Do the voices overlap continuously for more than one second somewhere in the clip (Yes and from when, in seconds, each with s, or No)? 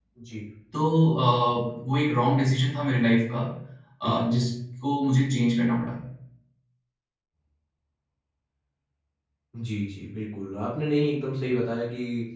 No